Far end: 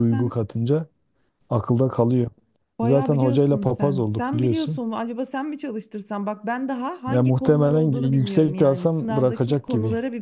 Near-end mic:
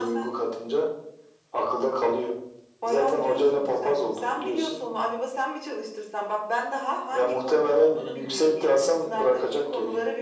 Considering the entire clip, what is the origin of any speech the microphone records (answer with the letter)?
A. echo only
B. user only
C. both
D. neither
A